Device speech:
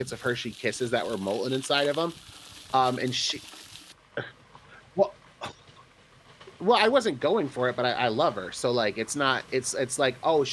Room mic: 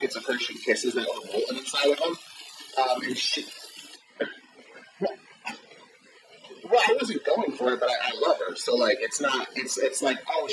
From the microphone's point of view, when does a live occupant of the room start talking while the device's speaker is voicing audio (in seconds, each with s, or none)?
none